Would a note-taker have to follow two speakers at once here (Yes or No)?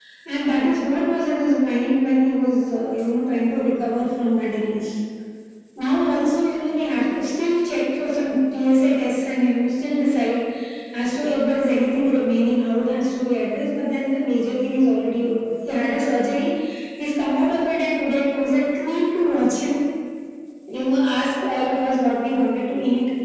No